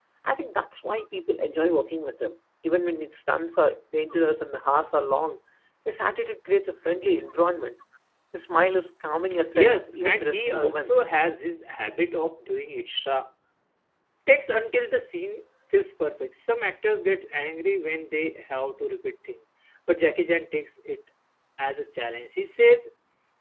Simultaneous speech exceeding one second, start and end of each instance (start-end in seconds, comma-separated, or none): 9.5-11.0